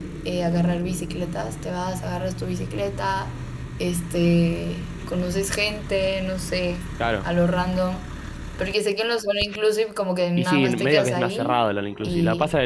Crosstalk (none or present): present